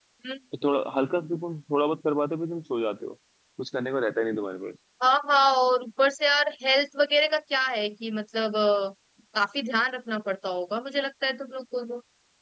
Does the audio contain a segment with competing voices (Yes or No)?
No